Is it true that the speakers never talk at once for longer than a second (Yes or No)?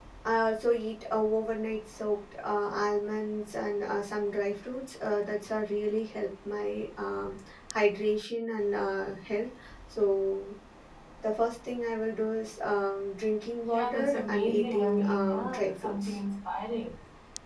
No